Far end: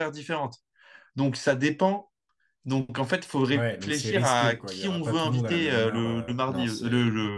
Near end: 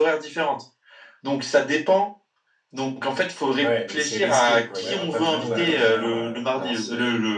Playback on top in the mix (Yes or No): Yes